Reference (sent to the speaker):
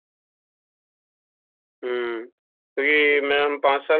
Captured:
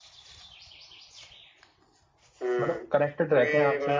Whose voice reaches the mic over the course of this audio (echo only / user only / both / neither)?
both